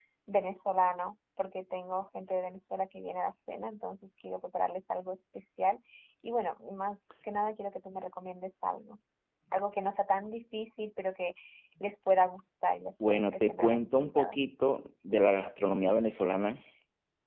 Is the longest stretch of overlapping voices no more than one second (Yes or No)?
No